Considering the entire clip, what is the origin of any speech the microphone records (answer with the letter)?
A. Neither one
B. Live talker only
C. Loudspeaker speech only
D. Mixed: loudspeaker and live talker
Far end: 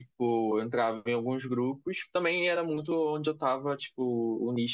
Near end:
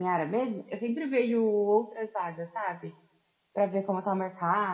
B